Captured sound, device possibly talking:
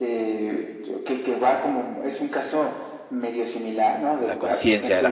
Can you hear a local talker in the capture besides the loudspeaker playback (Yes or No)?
Yes